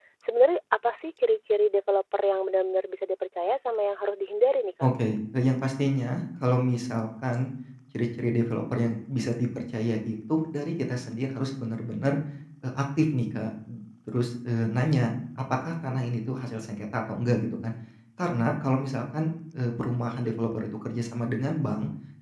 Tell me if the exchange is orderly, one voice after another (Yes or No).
Yes